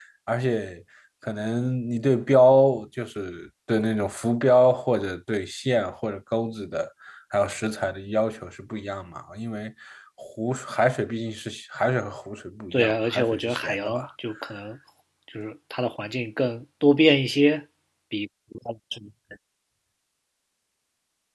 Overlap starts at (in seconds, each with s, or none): 12.7 s